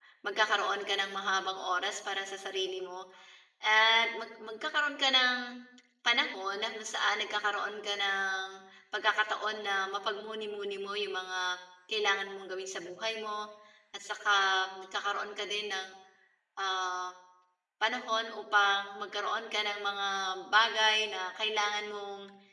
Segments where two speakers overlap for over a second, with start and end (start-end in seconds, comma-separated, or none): none